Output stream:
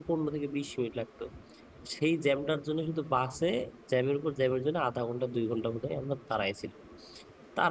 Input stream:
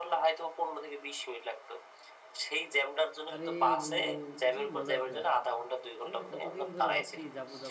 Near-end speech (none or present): present